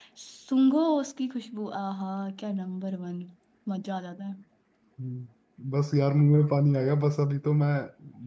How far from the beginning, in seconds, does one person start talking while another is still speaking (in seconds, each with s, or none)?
none